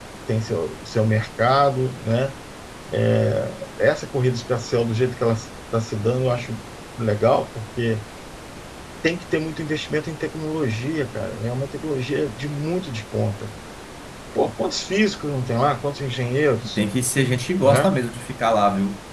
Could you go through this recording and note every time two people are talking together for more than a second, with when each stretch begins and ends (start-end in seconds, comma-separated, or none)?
none